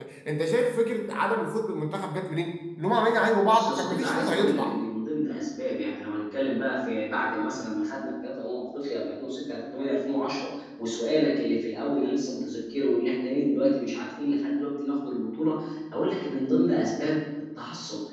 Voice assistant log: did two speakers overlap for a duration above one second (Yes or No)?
Yes